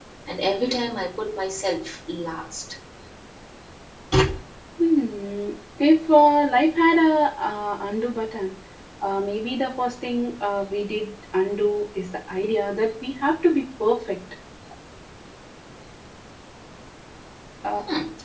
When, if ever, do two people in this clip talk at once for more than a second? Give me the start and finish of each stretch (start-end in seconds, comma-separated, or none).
none